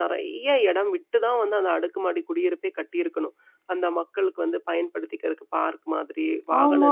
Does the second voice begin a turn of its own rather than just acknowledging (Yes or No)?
Yes